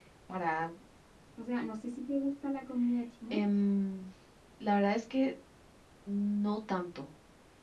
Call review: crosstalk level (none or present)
none